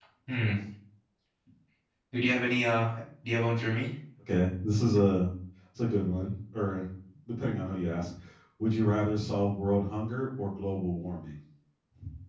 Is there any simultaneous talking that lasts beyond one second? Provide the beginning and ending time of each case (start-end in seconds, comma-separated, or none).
none